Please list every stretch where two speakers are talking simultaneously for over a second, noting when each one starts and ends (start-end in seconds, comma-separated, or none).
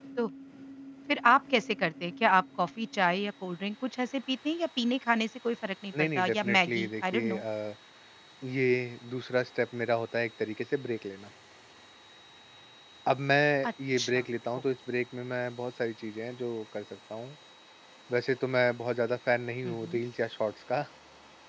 6.0-7.4